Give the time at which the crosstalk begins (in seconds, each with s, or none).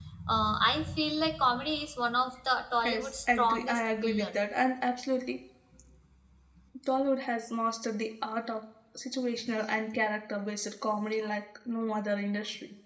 2.8 s